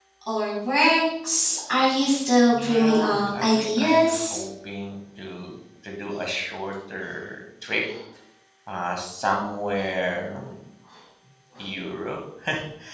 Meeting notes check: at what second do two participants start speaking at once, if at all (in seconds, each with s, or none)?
2.5 s